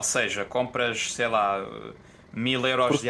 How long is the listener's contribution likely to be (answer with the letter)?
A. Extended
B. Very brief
B